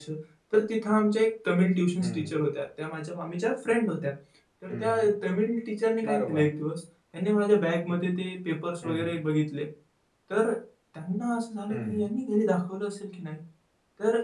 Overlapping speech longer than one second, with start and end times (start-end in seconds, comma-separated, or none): none